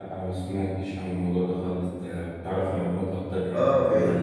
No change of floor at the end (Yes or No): No